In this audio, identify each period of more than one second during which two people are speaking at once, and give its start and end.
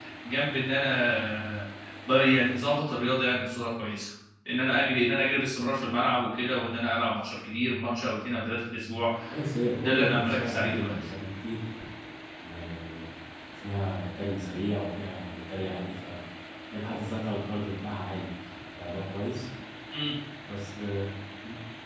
9.8-11.1

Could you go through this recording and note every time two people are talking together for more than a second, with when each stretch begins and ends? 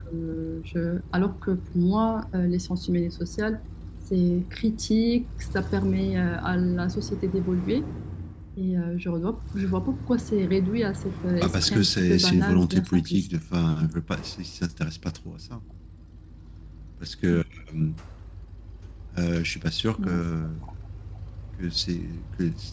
11.4-13.3

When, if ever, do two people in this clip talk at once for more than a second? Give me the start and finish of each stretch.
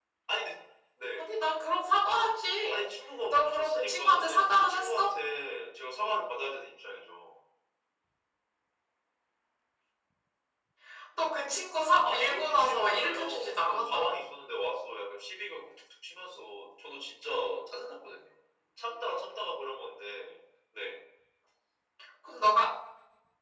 3.3-5.1, 12.0-14.2

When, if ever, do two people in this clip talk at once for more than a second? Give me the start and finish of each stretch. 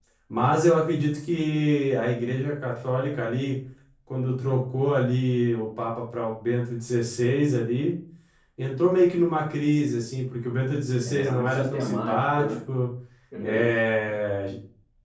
11.0-12.4

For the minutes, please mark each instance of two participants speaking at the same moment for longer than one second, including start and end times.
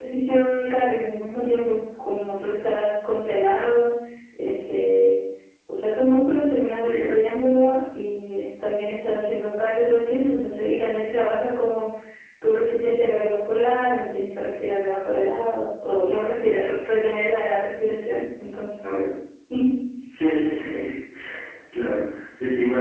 none

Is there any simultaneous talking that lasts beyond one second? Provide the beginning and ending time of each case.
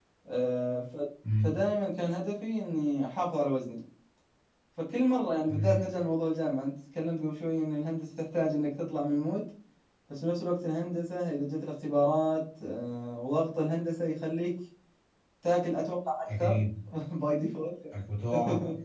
none

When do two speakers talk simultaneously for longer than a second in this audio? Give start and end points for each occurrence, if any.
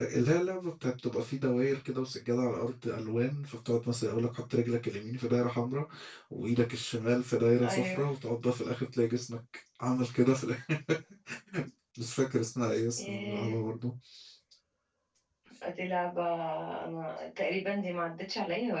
none

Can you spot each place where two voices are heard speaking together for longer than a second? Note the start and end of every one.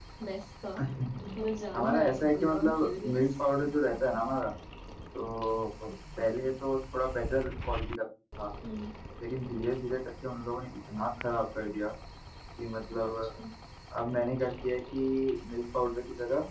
1.7-3.2

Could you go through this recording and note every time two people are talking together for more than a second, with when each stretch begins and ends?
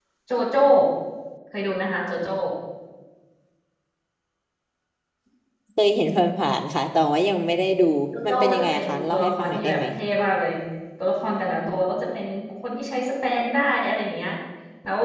8.2-9.8

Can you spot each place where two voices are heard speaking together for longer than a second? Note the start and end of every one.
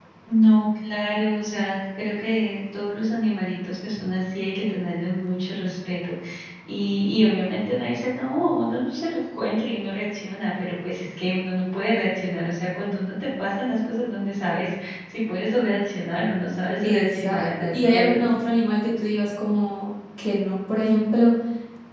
16.8-18.3

